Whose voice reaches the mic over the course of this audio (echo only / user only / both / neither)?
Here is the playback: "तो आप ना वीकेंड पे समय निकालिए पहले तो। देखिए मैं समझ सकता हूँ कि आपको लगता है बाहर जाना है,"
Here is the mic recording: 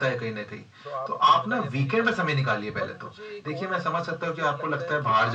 both